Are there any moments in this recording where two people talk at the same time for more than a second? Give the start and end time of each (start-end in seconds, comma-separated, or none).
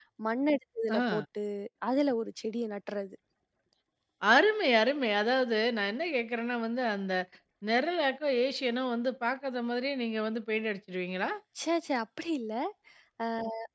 none